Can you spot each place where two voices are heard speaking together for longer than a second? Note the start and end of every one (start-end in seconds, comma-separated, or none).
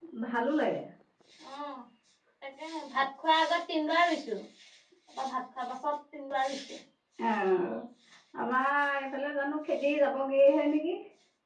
none